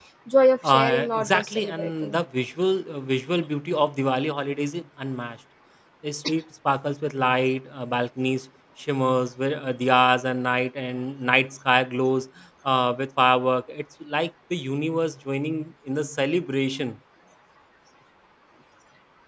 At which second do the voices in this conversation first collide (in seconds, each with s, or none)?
0.6 s